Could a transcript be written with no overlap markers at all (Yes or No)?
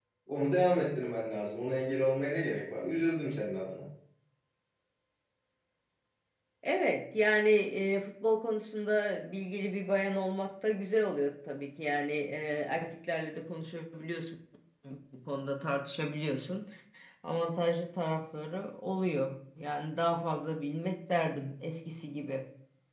Yes